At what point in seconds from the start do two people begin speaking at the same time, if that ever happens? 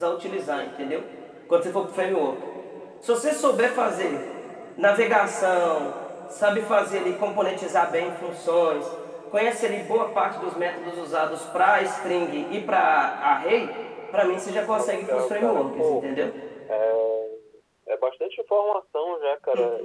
14.8 s

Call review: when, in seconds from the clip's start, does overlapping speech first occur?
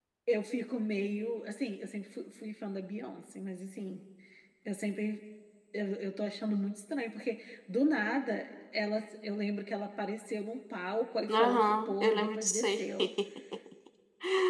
11.3 s

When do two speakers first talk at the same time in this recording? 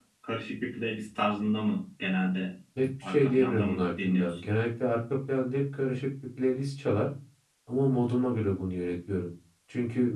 3.0 s

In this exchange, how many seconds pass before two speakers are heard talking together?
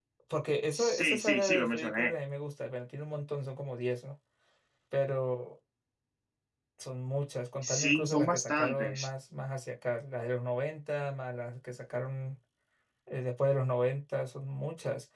0.7 s

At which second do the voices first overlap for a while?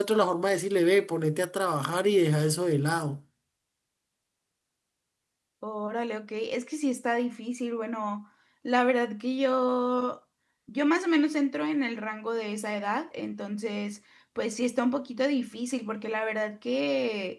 none

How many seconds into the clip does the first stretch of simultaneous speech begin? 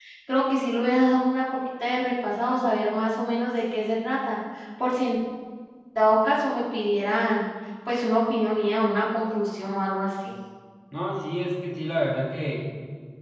none

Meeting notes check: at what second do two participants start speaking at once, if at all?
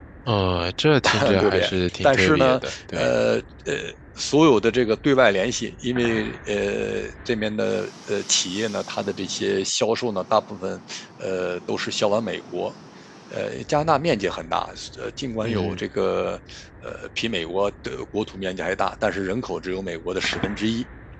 1.0 s

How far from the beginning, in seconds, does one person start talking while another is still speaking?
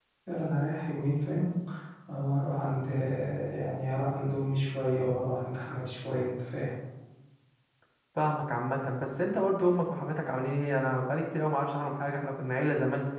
none

